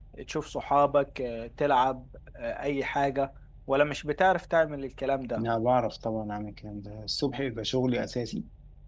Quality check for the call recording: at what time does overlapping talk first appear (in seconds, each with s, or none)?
none